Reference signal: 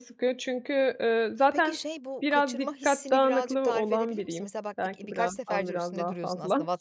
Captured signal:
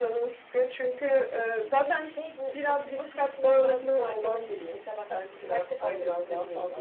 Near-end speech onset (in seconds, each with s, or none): none